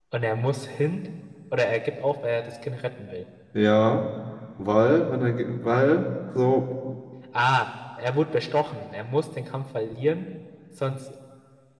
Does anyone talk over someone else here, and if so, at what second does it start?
none

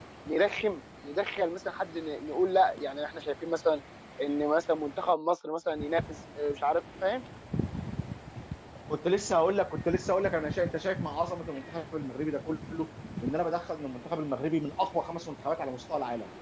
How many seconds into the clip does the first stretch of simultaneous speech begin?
none

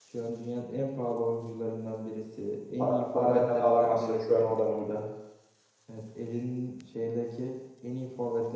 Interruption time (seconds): 2.8 s

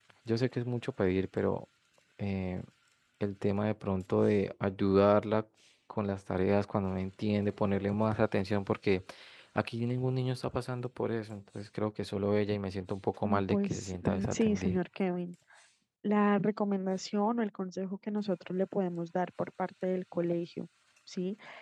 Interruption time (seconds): 13.2 s

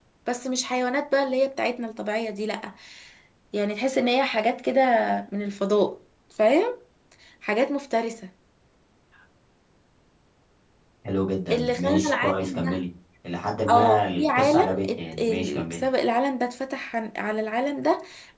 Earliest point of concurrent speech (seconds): 11.5 s

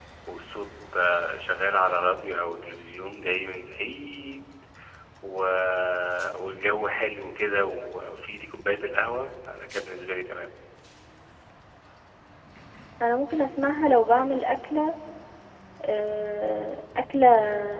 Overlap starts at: none

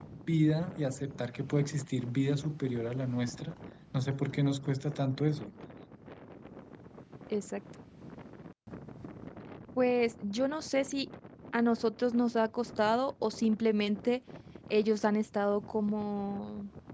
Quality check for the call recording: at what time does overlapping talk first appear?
none

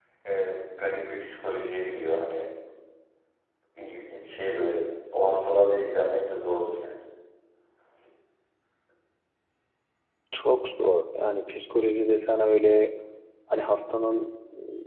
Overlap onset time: none

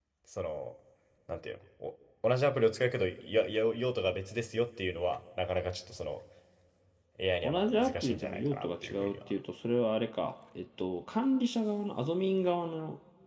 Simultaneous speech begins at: 7.4 s

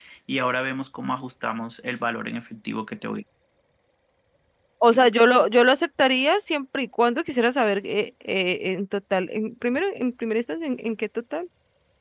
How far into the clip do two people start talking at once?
none

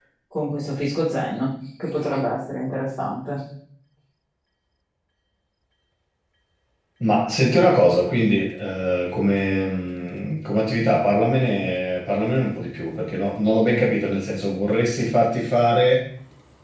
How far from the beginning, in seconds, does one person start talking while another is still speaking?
none

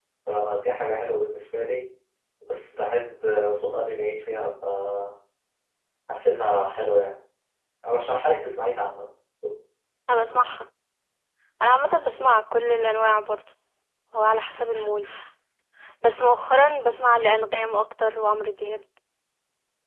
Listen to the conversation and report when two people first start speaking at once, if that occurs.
none

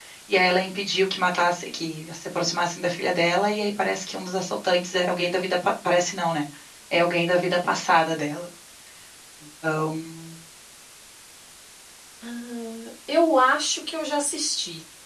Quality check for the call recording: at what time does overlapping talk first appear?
none

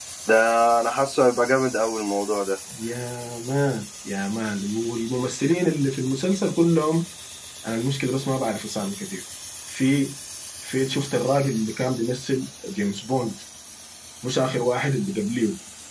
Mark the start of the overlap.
none

